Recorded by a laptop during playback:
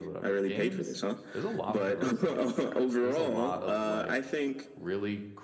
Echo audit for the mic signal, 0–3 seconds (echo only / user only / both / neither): both